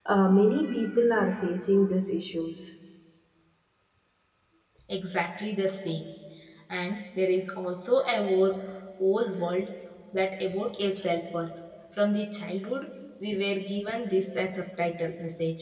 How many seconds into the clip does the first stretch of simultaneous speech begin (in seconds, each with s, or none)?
none